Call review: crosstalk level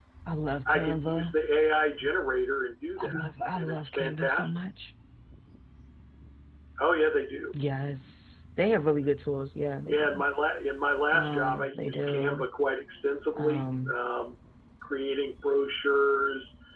present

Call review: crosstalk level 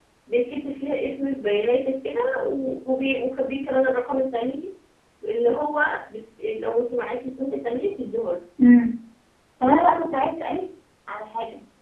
none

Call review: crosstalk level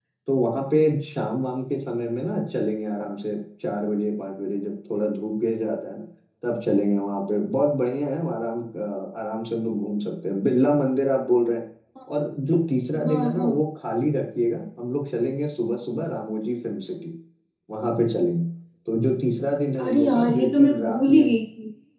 present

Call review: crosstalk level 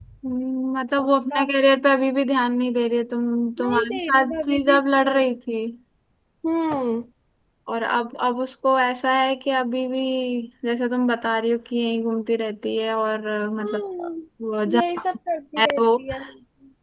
present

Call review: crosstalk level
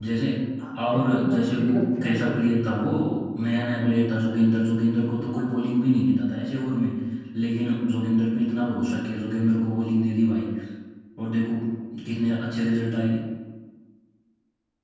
present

